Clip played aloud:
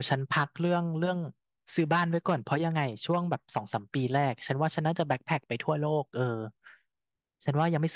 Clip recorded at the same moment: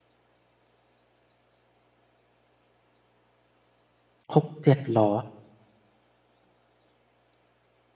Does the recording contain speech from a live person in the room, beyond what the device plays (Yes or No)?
Yes